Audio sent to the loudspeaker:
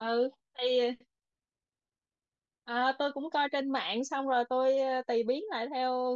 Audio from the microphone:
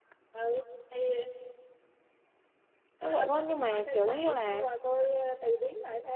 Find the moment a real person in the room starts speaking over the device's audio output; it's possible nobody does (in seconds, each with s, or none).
3.0 s